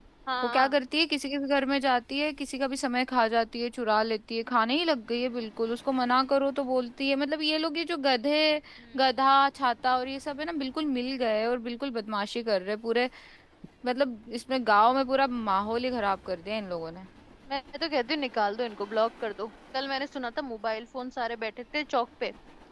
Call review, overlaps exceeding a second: none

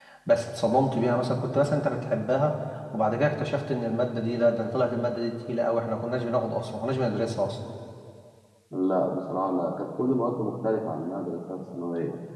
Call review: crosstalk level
none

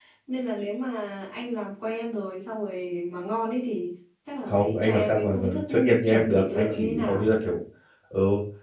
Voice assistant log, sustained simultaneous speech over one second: present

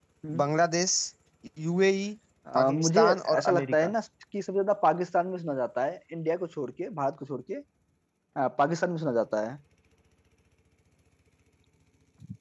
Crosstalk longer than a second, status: present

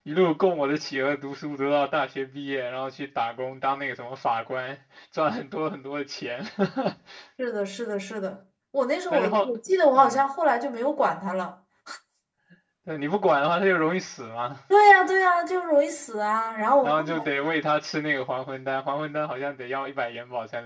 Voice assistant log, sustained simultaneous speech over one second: none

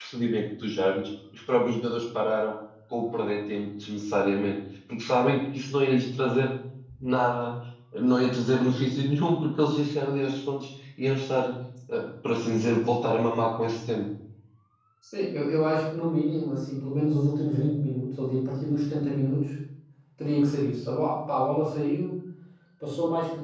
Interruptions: none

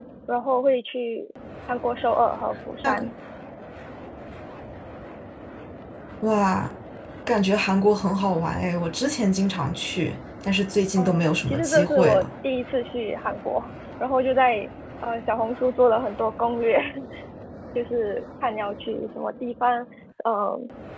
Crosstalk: present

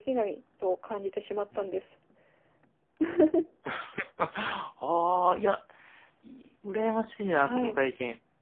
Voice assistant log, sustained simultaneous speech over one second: none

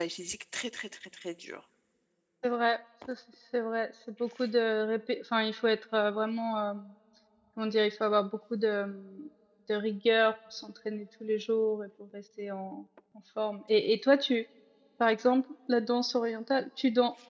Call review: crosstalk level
none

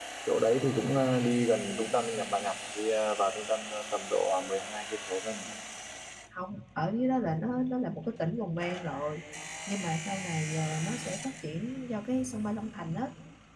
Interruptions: none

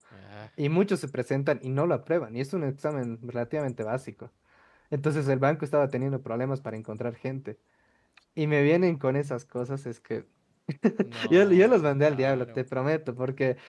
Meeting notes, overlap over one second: present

